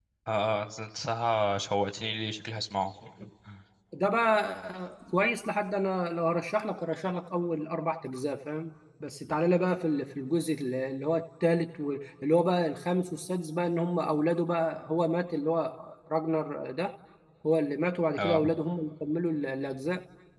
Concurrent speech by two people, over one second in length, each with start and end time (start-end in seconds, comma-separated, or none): none